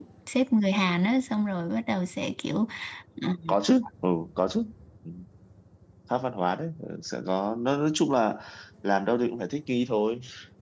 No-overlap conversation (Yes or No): Yes